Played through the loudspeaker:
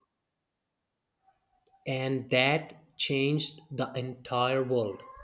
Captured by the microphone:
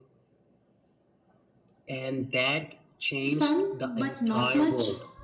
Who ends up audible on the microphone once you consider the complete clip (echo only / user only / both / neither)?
both